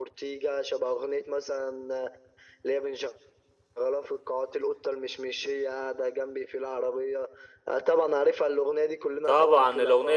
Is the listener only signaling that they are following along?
No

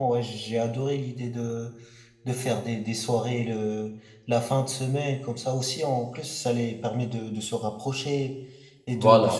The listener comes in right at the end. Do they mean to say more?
No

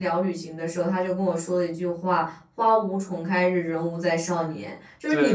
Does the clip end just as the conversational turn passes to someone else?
No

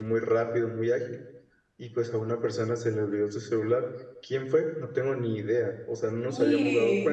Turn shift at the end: No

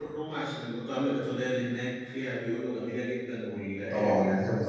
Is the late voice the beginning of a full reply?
Yes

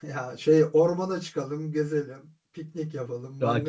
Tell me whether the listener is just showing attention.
No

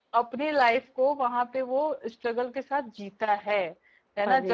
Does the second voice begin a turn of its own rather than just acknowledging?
No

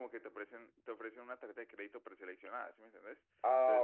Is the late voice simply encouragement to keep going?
Yes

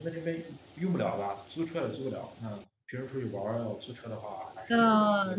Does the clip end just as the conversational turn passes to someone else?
Yes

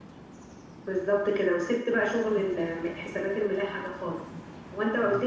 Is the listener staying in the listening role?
Yes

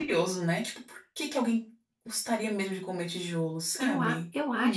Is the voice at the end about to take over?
Yes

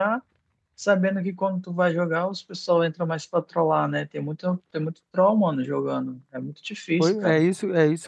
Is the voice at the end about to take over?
Yes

